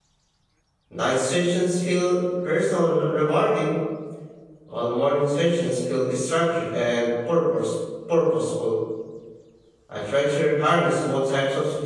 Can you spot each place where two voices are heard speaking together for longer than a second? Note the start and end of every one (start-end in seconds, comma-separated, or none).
none